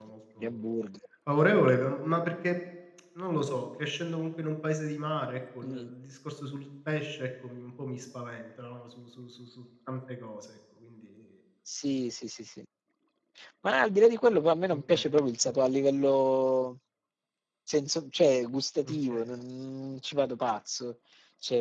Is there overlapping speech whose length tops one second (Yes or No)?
No